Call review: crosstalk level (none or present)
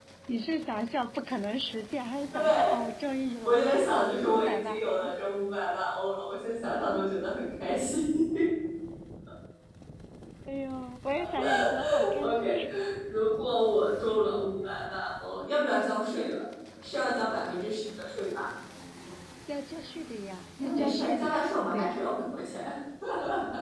present